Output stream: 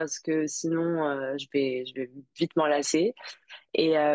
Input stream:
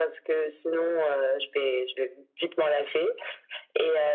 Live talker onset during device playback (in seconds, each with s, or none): none